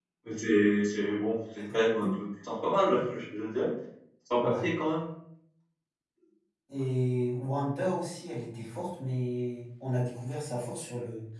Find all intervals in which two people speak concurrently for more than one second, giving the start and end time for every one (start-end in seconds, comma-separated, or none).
none